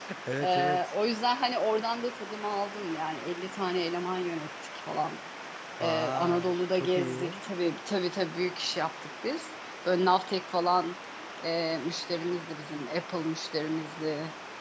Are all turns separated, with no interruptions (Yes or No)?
No